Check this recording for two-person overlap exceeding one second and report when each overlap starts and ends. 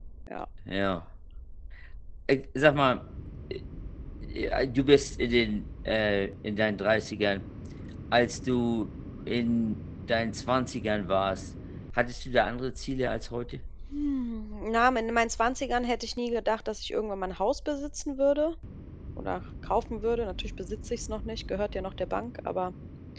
none

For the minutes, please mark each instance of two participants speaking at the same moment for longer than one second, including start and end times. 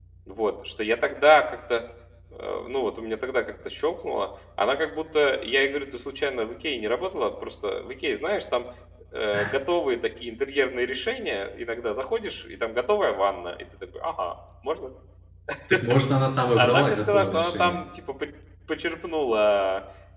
16.5-17.8

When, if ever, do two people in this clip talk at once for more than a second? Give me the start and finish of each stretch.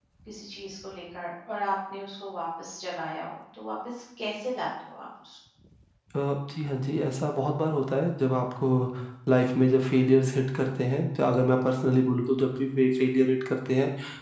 none

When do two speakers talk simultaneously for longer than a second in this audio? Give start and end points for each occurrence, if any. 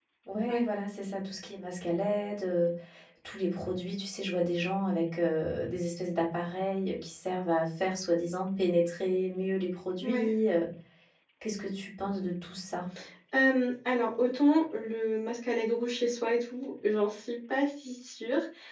none

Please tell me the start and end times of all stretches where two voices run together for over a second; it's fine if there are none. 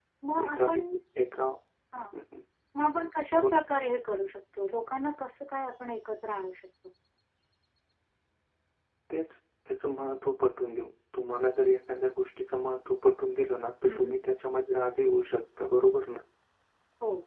none

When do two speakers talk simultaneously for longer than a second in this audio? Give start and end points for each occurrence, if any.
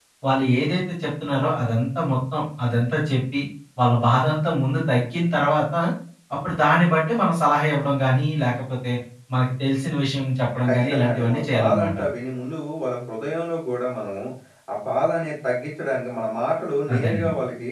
10.7-12.0

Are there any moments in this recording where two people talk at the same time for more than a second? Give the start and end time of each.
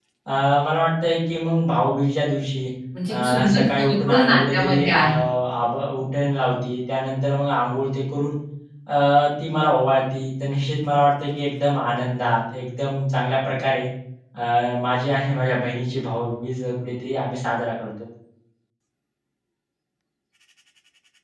3.1-5.0

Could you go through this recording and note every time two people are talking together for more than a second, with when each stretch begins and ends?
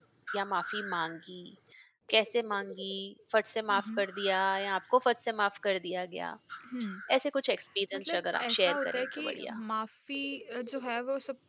7.9-9.6

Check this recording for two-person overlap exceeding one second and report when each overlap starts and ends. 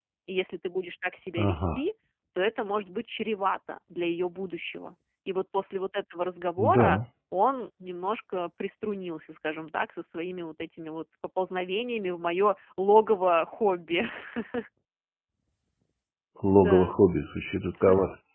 none

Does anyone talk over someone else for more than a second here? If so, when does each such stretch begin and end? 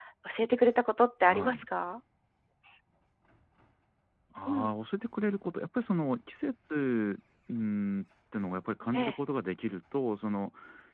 none

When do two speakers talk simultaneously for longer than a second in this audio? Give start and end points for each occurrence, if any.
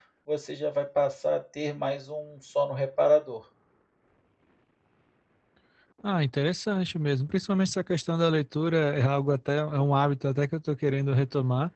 none

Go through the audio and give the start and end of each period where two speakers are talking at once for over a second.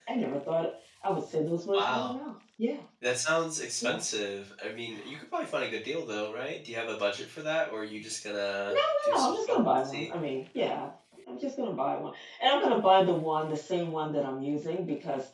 8.7-10.1

